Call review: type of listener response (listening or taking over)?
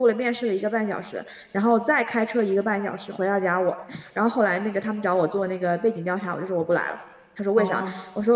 listening